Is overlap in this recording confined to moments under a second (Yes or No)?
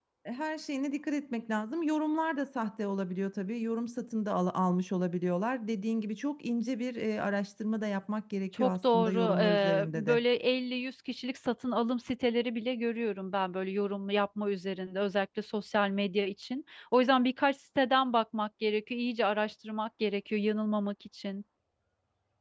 No